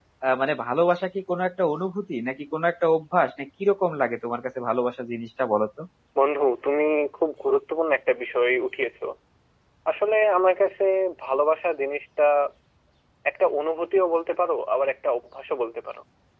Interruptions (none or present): none